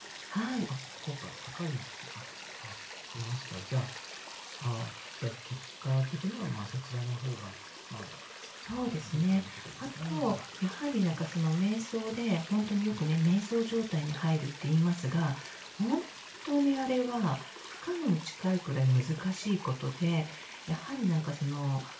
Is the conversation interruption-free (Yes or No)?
No